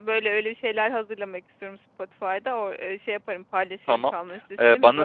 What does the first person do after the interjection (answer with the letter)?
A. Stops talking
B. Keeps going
A